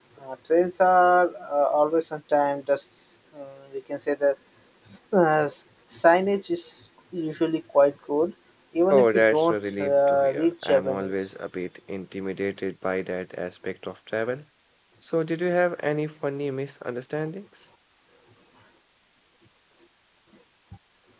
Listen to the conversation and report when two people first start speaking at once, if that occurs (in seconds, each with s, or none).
8.9 s